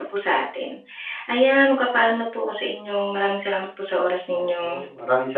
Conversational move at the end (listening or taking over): taking over